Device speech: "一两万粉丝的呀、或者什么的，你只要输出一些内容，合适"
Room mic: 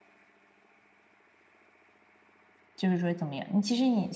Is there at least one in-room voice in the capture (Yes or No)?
Yes